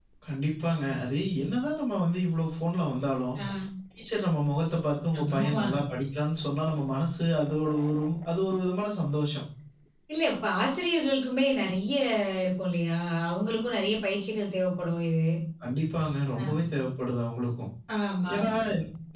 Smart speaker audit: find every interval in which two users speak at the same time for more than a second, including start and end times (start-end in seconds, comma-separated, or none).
none